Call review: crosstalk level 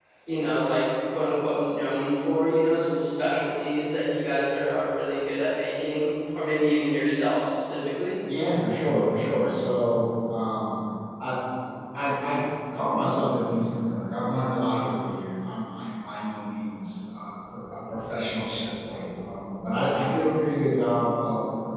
none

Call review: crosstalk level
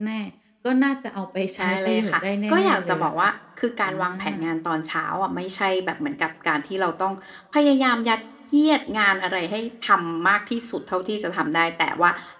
present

